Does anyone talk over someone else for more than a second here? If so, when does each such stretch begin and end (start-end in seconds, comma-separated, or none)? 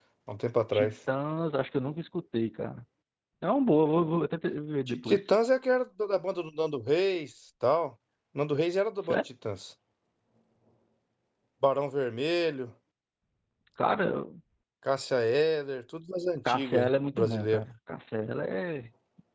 16.4-17.6